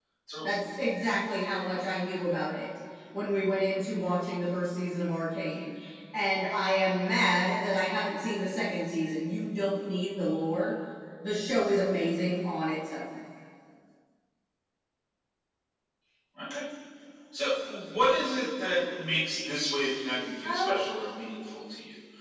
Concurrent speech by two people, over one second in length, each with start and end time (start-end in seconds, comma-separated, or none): none